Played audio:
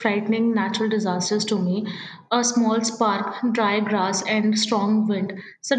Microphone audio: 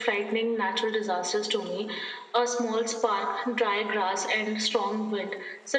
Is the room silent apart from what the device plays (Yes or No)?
Yes